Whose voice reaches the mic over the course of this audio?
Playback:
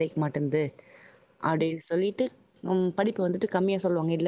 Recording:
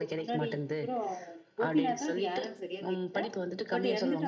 both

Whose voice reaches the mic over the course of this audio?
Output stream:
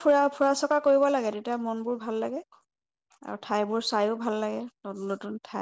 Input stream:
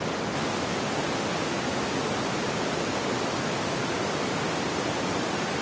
neither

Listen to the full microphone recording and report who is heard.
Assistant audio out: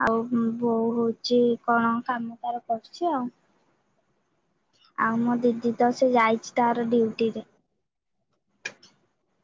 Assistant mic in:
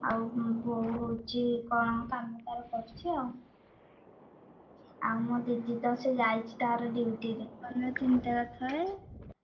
both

